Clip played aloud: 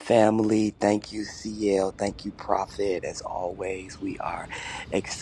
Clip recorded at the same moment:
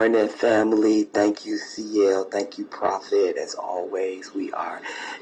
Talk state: echo only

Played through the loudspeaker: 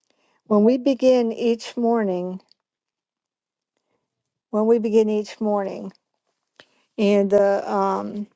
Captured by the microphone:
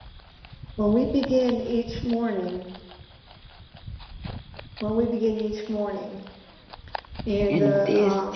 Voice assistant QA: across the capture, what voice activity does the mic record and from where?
both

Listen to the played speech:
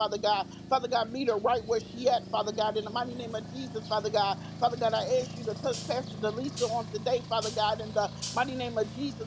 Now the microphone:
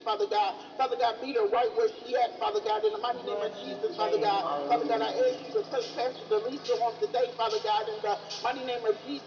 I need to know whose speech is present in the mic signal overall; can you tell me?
both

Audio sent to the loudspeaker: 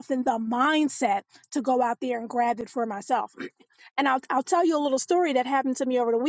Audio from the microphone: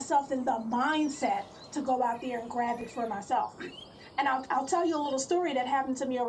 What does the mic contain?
echo only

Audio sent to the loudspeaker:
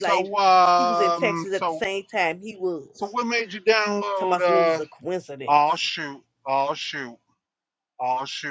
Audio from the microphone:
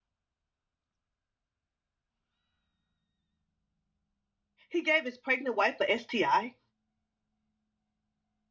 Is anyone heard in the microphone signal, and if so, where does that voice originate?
user only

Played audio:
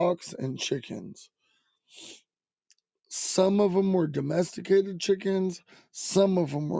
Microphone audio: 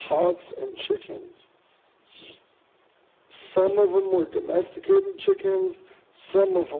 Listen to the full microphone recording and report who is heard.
echo only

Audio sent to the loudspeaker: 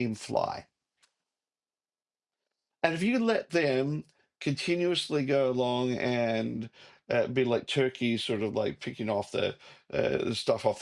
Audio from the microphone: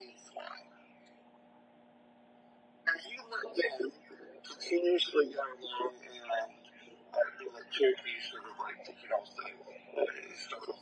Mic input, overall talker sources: echo only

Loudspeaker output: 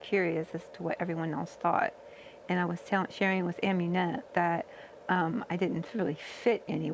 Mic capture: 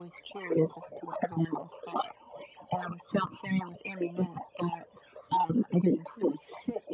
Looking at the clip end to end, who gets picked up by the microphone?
echo only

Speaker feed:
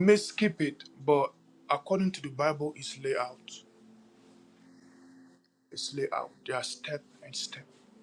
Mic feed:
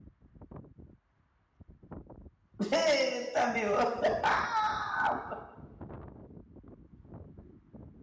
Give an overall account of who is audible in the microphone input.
user only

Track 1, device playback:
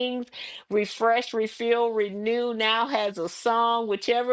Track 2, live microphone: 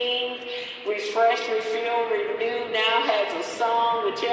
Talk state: echo only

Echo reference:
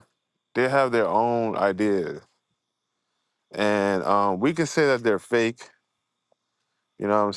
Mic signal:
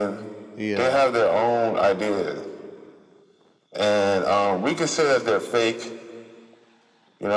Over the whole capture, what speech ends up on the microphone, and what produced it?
both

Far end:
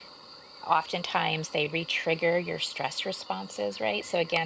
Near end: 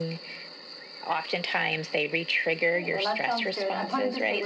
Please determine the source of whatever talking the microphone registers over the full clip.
both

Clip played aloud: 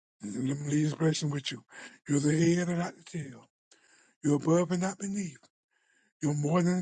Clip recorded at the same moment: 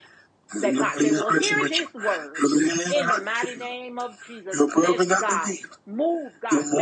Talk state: both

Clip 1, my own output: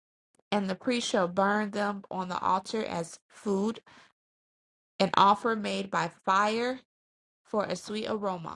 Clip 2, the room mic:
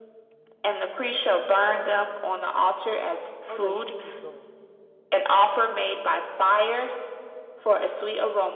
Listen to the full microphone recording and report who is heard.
both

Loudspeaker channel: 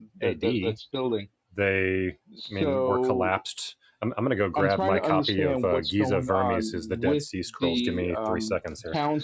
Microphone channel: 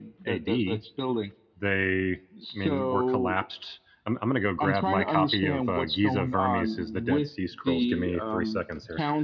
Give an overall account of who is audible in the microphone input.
echo only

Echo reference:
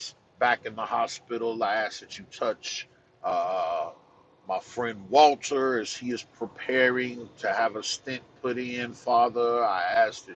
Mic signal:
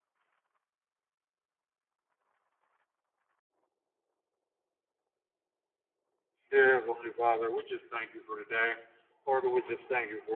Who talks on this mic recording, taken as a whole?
user only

